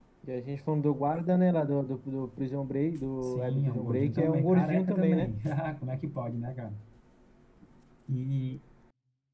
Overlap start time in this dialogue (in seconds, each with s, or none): 3.2 s